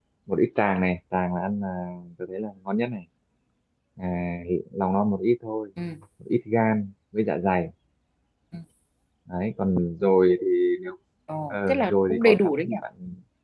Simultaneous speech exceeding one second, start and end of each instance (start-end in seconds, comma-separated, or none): 11.5-12.8